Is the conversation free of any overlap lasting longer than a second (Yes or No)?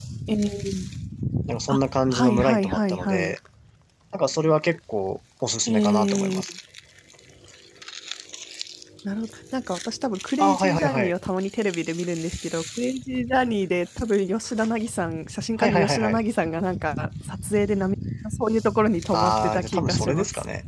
No